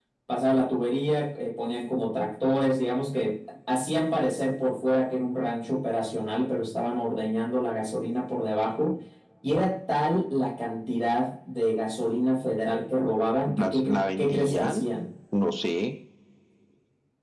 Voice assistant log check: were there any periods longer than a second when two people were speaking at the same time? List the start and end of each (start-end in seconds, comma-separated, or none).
13.5-14.9